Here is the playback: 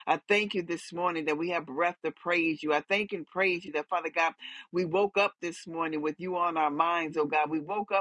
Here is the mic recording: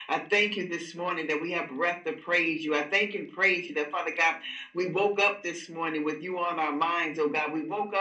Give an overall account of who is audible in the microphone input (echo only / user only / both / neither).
echo only